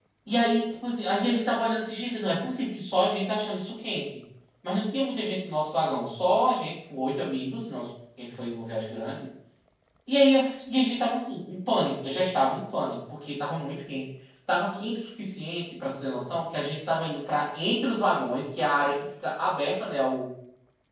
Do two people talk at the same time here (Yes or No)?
No